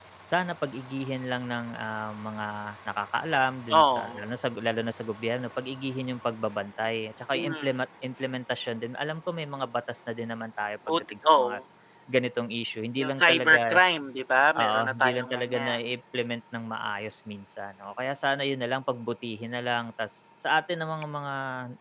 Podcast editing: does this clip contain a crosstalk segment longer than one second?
Yes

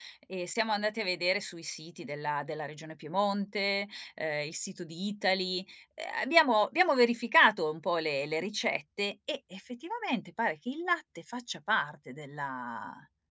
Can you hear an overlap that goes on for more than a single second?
No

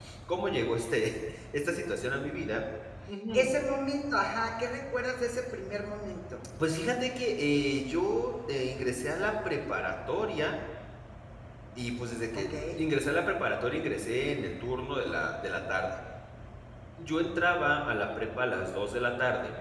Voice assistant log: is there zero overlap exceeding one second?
Yes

